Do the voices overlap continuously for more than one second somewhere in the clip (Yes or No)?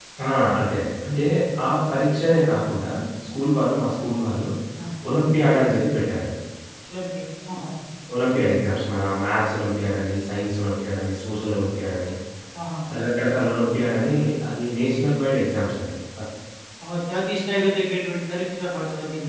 No